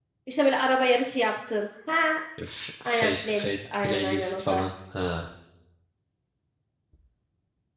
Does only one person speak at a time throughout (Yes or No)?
No